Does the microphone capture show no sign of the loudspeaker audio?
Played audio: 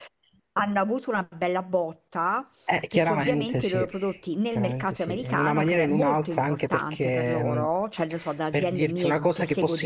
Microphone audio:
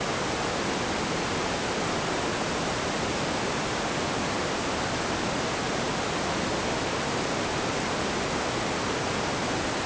Yes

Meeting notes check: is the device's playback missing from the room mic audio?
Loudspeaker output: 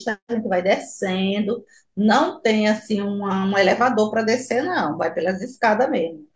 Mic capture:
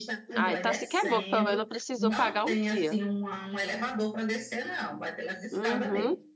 No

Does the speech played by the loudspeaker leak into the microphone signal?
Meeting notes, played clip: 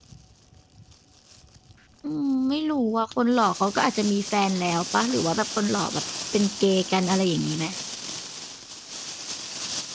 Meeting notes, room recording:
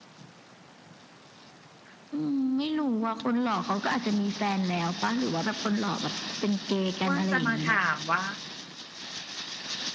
Yes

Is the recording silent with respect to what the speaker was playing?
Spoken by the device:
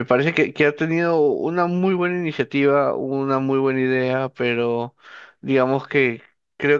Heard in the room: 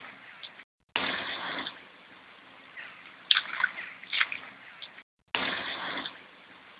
Yes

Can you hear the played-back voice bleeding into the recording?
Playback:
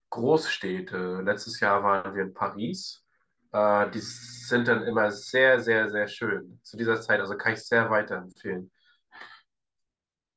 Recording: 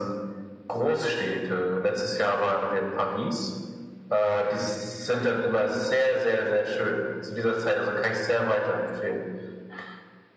Yes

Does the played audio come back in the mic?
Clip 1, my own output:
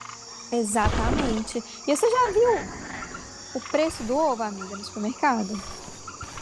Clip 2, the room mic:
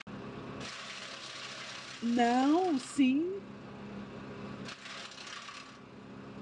No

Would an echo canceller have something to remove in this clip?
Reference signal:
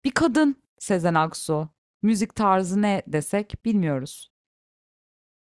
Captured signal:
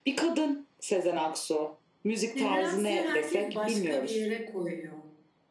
Yes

